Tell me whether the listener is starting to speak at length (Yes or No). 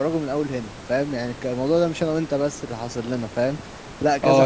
Yes